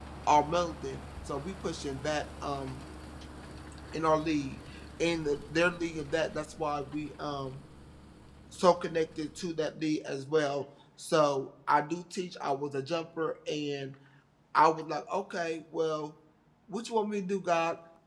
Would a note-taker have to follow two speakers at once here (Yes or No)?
No